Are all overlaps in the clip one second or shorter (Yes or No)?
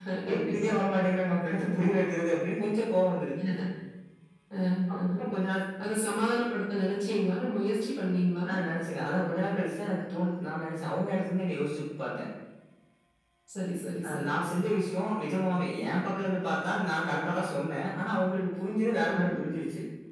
Yes